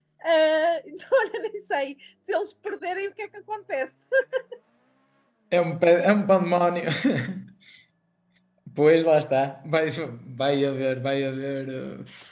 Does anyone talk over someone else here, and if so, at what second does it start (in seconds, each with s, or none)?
none